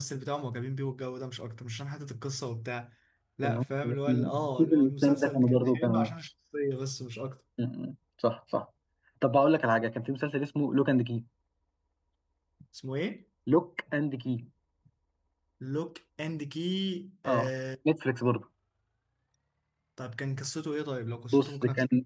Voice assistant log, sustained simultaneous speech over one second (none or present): present